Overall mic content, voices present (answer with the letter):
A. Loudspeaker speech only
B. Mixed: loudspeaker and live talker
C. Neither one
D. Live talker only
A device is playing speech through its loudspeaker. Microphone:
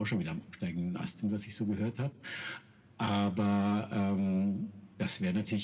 A